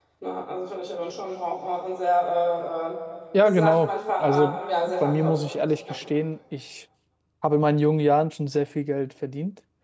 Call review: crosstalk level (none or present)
present